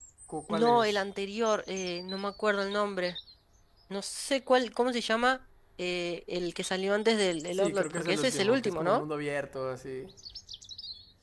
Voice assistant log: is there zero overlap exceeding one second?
No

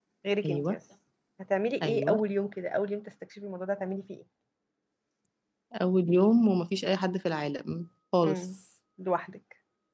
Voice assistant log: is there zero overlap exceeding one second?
Yes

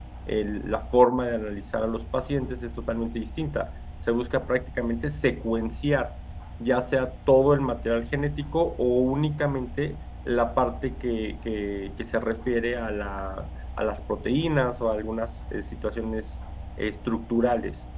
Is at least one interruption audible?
No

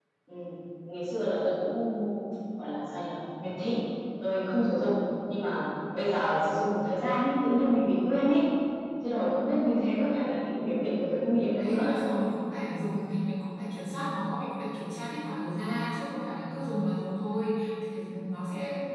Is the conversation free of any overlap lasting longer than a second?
Yes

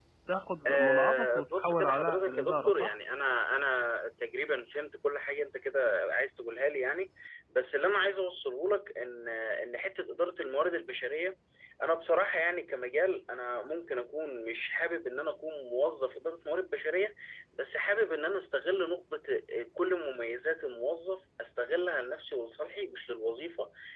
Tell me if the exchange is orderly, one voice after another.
No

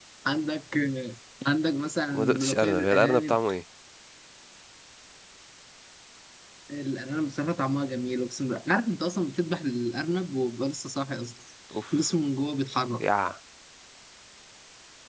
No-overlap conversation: No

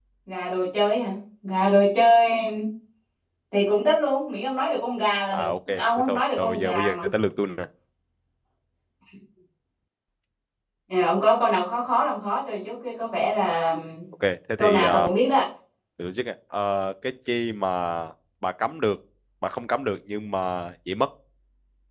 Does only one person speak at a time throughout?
No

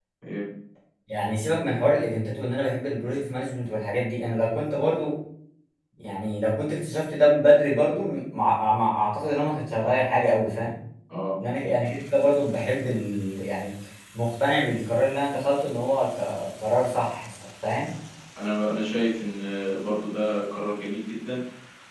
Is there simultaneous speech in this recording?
No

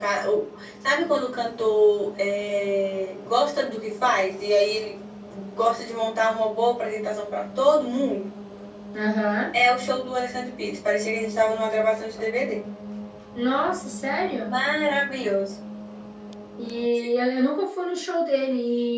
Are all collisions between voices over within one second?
Yes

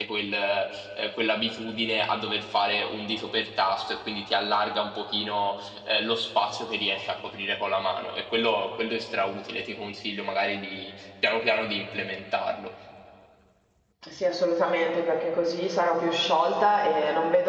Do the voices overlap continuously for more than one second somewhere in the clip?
No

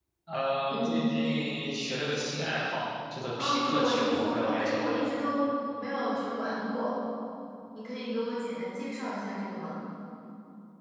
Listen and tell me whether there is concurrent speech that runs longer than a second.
Yes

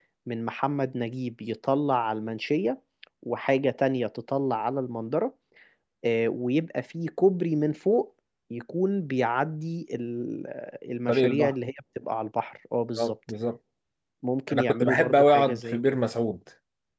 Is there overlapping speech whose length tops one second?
Yes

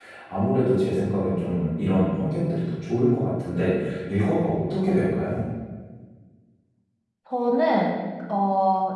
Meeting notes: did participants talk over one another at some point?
No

